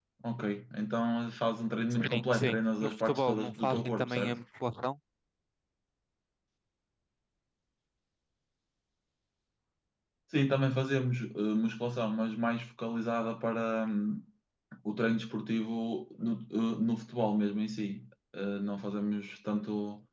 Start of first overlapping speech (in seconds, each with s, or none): 1.9 s